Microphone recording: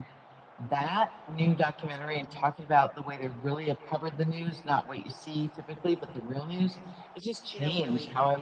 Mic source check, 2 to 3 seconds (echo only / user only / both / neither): echo only